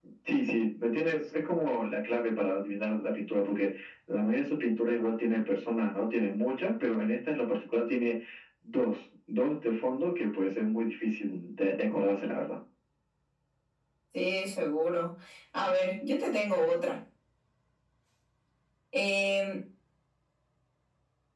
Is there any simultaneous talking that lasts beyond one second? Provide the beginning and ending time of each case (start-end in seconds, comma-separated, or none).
none